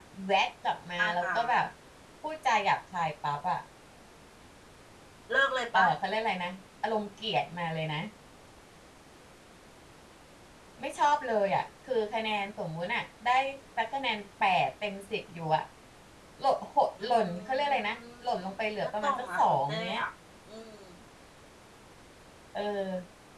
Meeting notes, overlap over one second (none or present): present